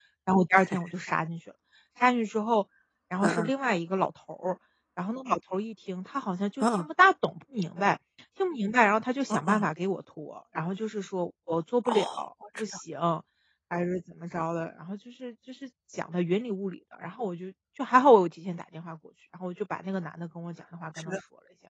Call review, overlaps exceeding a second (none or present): none